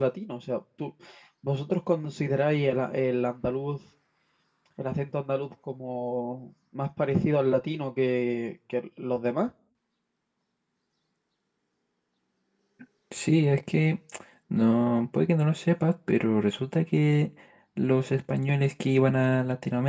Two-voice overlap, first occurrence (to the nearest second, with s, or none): none